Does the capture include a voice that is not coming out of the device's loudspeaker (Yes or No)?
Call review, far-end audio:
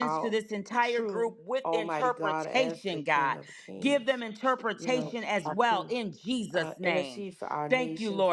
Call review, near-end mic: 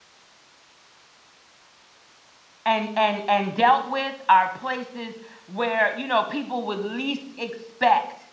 Yes